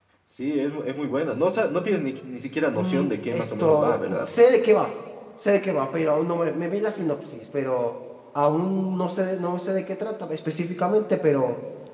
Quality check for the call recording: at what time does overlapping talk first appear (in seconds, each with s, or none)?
2.7 s